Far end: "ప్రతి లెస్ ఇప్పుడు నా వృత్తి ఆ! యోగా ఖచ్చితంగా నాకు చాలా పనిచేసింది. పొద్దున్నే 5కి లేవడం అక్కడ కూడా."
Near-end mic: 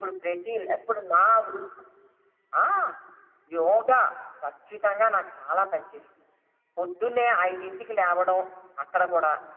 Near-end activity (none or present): none